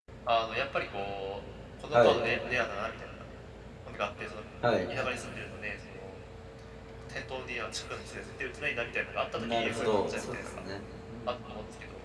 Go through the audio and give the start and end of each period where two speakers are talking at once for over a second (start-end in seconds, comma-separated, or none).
9.4-10.6